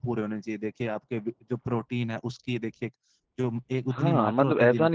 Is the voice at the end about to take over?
Yes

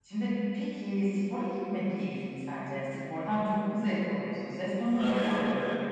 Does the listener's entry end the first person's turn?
Yes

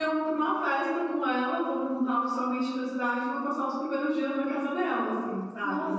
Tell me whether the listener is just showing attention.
No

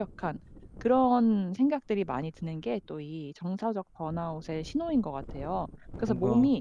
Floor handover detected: No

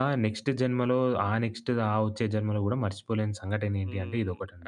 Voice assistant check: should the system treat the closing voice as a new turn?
Yes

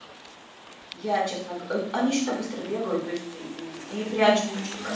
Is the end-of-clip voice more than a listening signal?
No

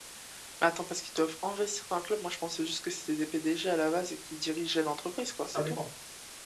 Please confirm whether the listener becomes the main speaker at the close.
Yes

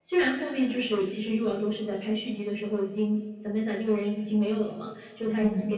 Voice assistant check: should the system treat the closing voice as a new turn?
No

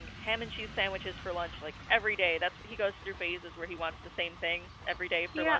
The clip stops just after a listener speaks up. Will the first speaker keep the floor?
No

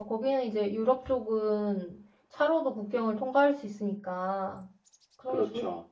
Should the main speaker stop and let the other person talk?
No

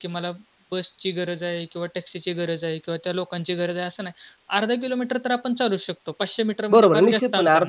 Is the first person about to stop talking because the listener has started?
Yes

